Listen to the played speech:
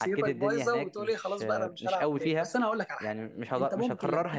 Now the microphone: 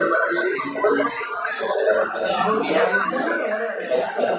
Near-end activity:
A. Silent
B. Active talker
B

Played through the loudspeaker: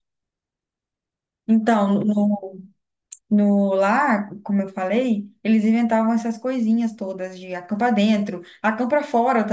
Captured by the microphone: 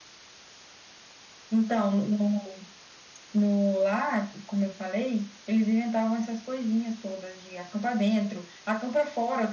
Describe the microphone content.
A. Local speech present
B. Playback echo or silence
B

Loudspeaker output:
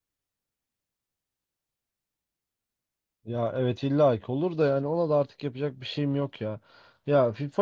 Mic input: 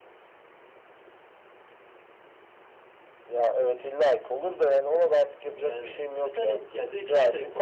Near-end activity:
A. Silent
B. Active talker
B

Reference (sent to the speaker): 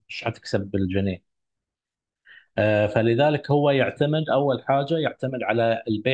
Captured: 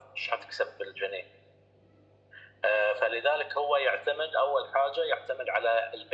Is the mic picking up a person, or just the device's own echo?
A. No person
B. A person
A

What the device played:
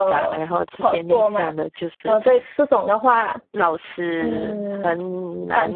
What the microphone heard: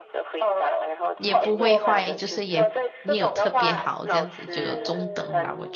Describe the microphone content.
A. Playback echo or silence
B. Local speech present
B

